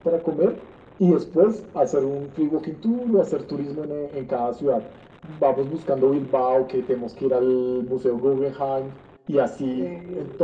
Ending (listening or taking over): listening